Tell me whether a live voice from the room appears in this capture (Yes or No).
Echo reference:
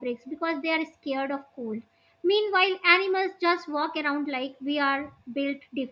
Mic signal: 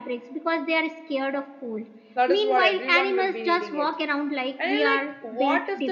Yes